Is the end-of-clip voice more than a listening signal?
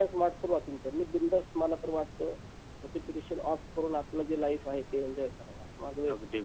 Yes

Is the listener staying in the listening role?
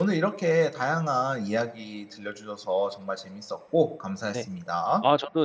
No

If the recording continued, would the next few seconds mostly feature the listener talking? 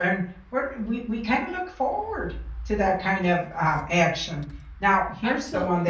No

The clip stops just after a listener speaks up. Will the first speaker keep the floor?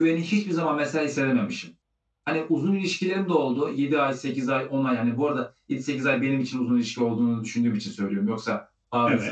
Yes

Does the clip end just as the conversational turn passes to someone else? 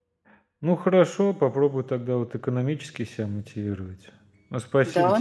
No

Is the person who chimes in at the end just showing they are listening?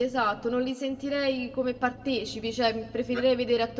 Yes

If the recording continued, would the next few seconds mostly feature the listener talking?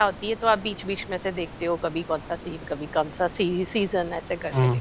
Yes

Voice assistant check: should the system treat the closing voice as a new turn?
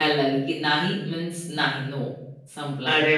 Yes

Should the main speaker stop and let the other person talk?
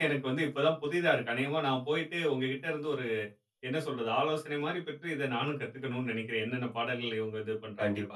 Yes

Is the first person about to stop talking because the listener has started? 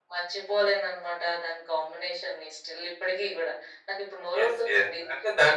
Yes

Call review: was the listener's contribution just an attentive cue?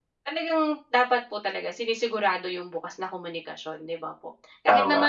Yes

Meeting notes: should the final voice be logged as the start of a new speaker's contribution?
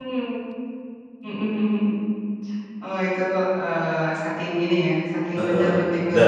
Yes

